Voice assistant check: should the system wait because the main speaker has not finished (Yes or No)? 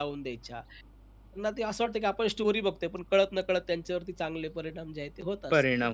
No